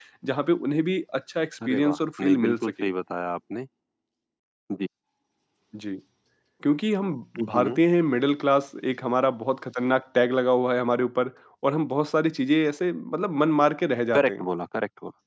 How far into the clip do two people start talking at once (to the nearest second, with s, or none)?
2 s